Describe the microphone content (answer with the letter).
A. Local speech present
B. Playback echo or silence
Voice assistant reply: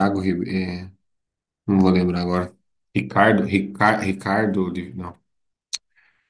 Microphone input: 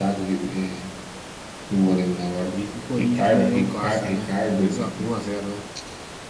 A